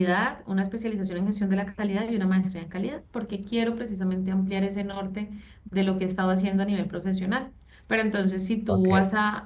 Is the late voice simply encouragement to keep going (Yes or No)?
Yes